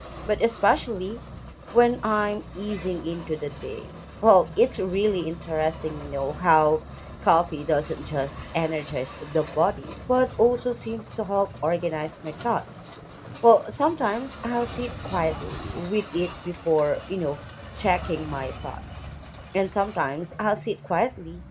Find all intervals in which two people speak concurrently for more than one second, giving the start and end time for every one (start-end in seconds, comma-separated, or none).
none